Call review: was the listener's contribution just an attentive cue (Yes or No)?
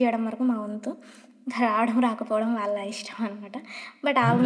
Yes